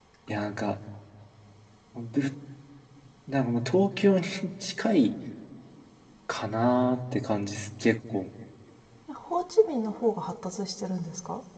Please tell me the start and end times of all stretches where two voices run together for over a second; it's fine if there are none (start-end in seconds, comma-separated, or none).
none